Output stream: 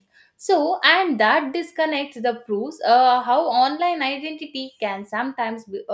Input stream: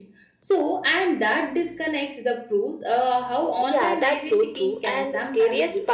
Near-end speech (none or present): present